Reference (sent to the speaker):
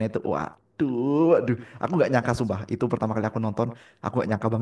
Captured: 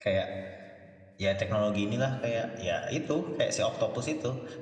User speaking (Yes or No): Yes